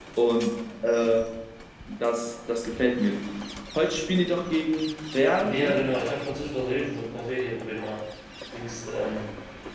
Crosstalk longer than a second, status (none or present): none